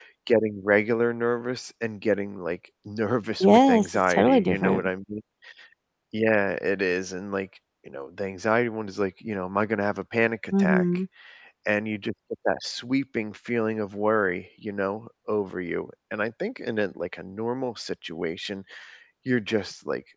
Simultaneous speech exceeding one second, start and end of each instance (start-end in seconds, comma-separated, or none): 3.4-4.9